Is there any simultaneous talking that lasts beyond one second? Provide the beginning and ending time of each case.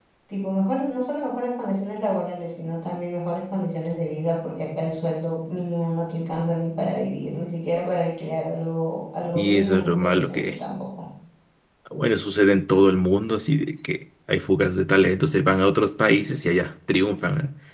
9.3-10.6

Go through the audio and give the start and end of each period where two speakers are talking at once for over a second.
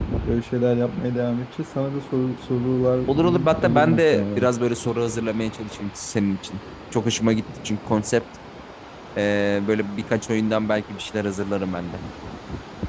3.1-4.5

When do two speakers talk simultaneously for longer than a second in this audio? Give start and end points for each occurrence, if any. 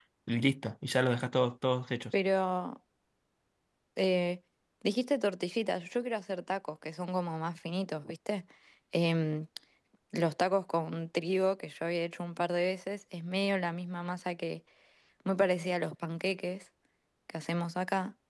none

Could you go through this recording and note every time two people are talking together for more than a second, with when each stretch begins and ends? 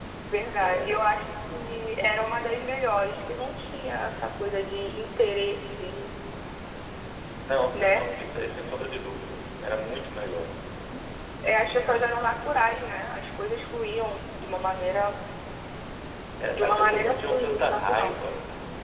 16.5-18.2

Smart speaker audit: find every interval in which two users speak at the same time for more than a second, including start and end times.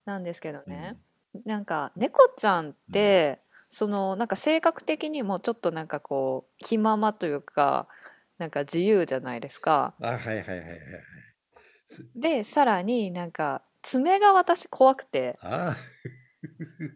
none

